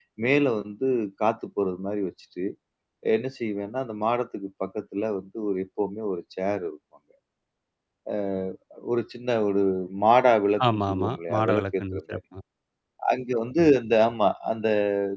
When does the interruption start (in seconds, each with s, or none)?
10.7 s